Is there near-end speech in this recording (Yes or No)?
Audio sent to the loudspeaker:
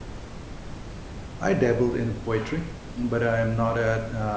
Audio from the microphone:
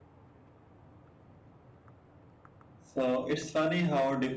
Yes